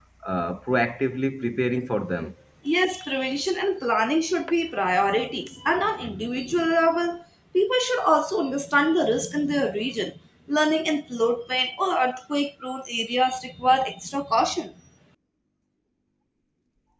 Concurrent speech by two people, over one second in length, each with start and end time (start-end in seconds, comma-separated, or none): none